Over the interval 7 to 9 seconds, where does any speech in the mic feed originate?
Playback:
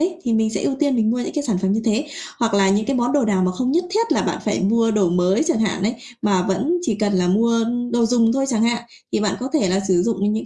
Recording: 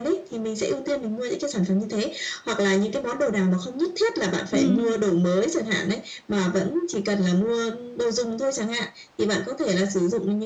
echo only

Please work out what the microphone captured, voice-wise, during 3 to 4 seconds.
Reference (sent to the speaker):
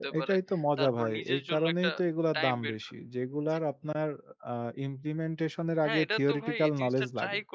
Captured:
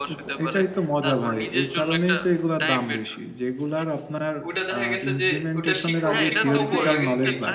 echo only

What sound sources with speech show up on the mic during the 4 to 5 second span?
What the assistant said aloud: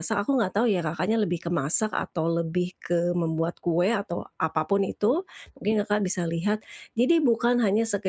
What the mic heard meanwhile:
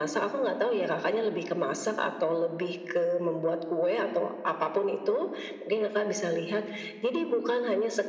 echo only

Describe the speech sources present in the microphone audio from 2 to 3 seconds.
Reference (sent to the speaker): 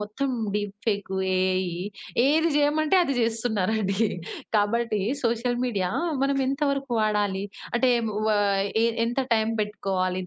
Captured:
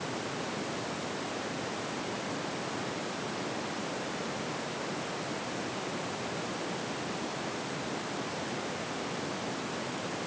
neither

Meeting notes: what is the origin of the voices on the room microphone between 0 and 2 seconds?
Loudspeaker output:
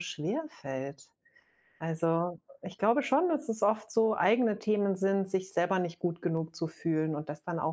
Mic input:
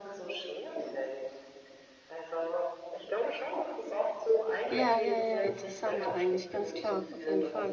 echo only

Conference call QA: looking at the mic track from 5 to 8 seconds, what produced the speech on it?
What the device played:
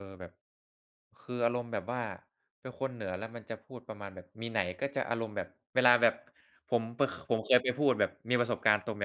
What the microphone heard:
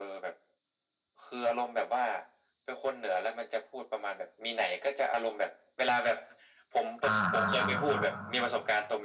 both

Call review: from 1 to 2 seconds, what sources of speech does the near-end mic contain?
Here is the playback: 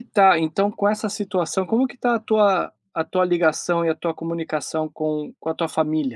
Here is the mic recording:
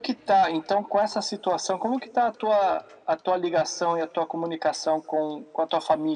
echo only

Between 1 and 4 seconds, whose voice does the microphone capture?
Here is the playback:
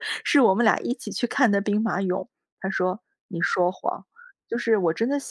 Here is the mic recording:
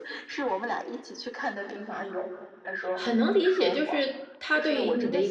both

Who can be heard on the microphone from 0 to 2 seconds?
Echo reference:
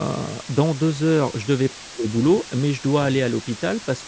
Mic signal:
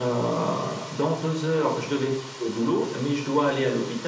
echo only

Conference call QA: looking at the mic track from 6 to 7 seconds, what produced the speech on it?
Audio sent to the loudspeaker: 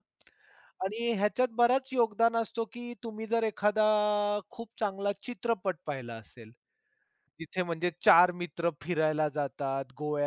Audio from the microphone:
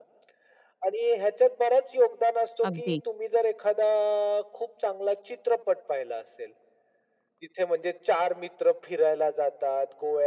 echo only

